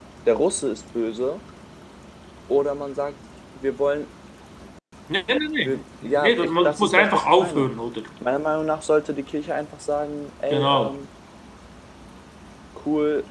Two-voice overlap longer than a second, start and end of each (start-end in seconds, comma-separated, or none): 5.6-7.7